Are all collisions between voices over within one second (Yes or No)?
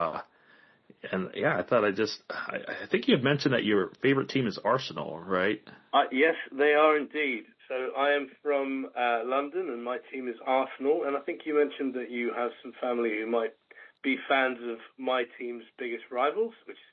Yes